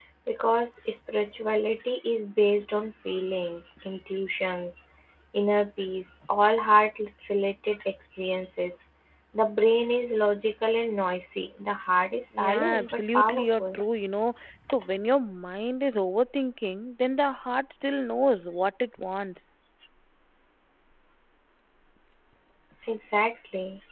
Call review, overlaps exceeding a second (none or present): present